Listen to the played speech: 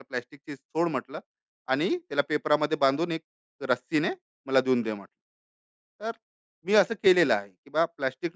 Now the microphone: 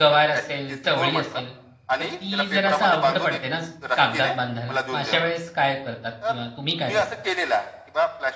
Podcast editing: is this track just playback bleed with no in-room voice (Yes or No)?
No